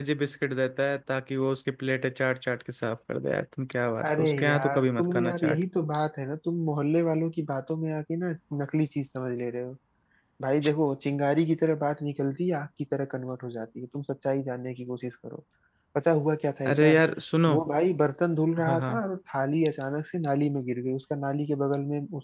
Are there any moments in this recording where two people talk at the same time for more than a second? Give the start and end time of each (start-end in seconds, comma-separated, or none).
4.0-5.6